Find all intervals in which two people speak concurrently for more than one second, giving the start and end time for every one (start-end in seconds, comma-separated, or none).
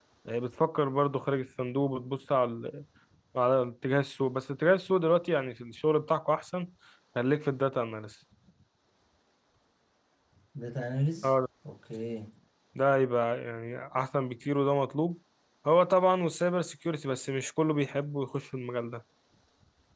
none